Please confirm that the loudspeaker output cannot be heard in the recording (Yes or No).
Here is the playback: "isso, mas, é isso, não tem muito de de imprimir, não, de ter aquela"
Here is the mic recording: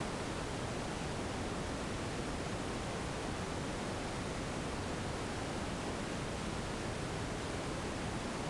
Yes